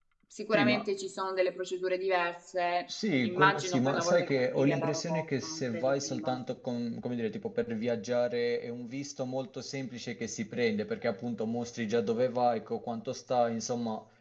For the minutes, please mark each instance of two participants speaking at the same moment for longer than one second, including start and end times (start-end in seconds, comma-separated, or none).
3.2-6.4